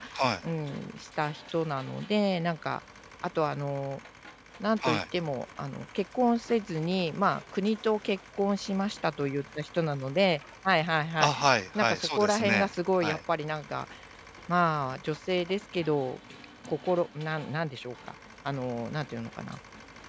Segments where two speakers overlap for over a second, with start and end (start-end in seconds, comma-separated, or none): 11.8-13.2